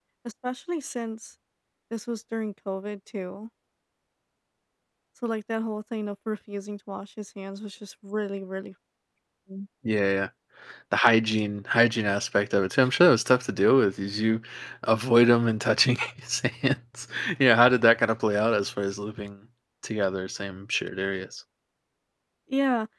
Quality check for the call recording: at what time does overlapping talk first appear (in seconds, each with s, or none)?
none